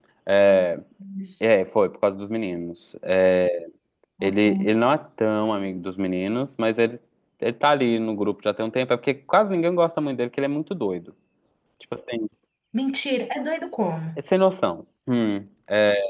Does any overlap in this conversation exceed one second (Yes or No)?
No